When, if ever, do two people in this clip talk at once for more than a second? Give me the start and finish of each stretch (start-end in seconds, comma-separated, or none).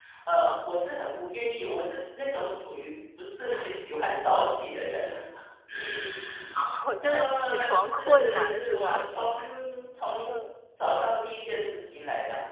7.0-9.0